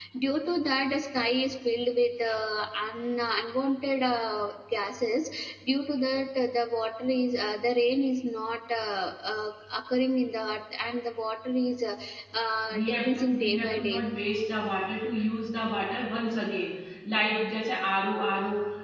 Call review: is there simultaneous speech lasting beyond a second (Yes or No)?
Yes